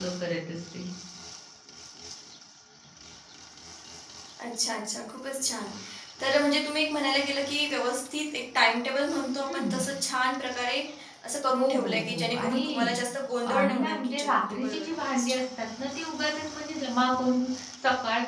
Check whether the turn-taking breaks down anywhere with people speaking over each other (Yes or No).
Yes